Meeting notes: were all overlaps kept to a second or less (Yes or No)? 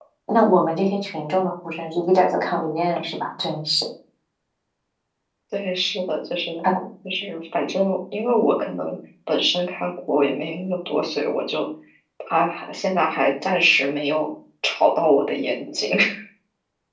Yes